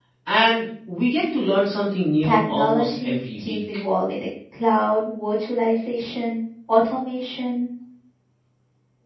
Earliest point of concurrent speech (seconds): 2 s

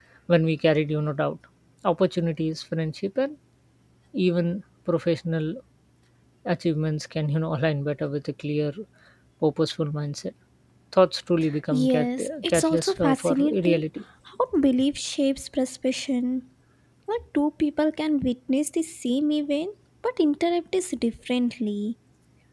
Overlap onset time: 12 s

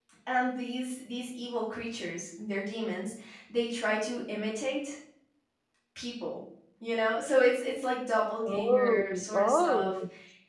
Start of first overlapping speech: 8 s

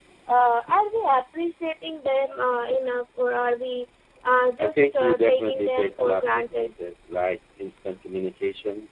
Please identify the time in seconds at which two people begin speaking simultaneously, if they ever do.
5 s

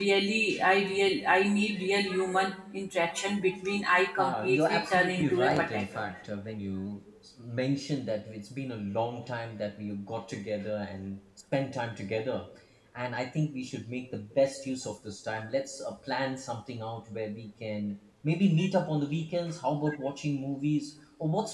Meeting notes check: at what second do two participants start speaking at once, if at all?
4 s

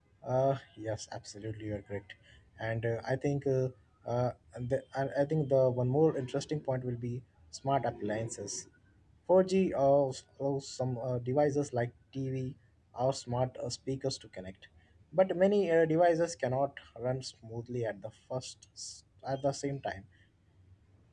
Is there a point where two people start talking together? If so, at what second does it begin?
none

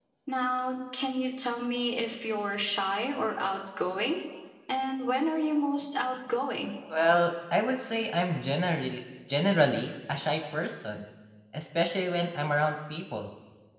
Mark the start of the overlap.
none

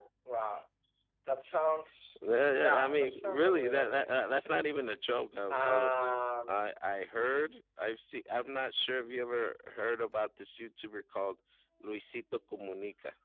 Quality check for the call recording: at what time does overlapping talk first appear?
3 s

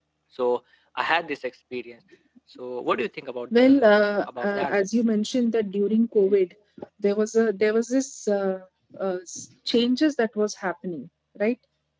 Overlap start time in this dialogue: 4 s

